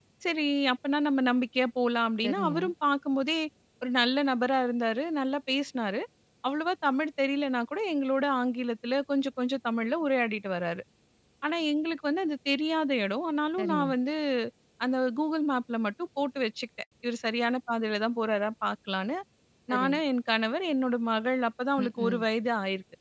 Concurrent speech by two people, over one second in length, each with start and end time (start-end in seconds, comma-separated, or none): none